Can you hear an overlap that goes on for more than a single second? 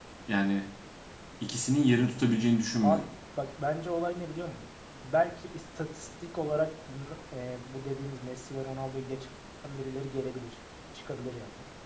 No

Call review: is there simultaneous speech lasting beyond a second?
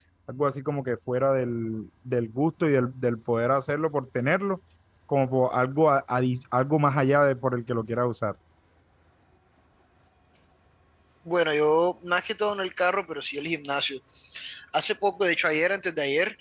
No

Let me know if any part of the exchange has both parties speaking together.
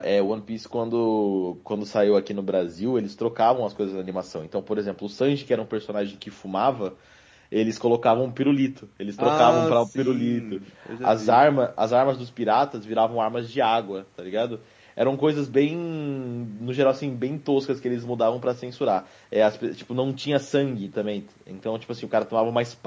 Yes, from 9.2 s

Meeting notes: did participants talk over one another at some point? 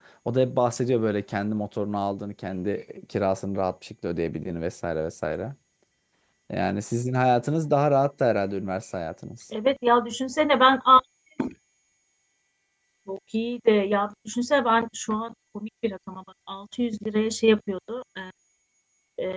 No

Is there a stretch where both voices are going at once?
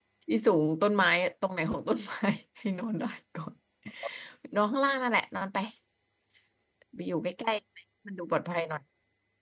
No

